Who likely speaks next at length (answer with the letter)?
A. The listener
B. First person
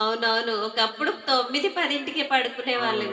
A